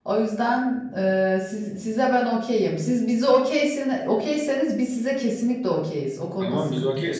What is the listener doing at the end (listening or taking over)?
taking over